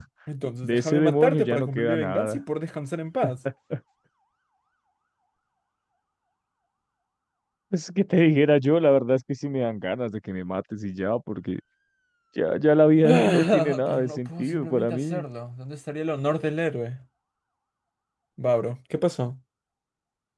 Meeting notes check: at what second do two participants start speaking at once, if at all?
1 s

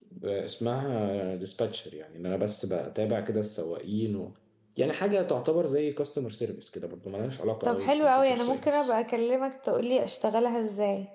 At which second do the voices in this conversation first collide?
8 s

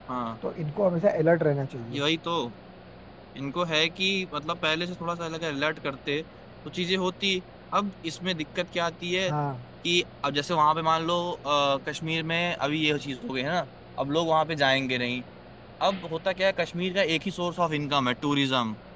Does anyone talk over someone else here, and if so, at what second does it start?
none

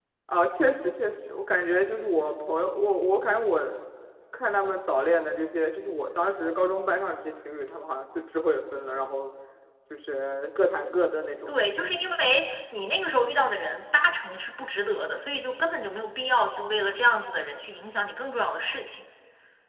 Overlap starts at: none

